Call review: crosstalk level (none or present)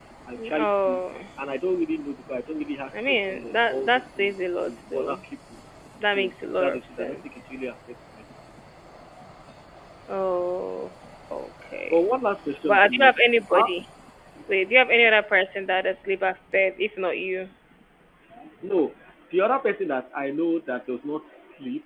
present